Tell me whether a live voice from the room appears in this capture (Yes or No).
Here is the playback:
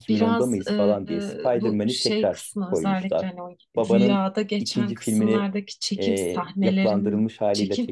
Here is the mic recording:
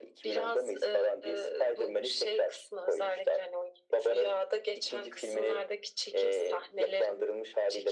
No